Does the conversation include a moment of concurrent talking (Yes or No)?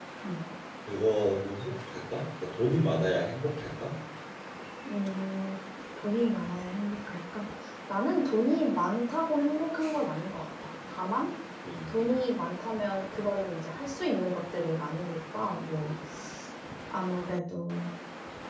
No